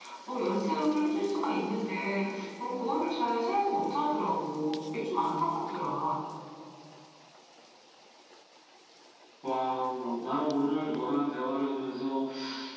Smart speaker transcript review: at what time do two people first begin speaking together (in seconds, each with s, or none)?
none